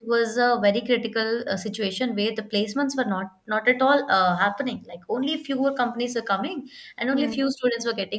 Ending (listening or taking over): listening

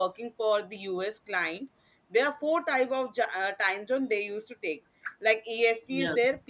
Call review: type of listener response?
listening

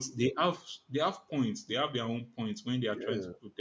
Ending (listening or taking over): listening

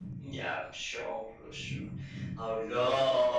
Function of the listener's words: listening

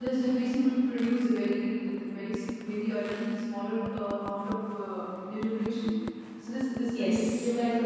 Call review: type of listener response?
listening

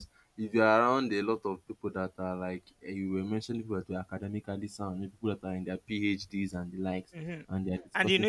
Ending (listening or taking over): taking over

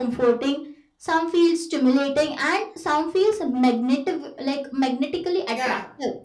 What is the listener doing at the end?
taking over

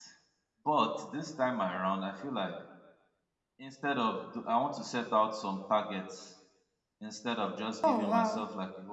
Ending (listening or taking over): listening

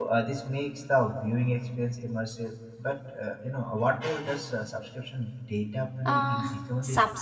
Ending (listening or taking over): taking over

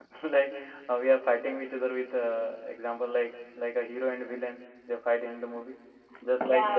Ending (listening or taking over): listening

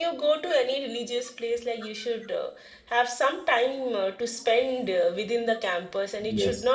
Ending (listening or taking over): listening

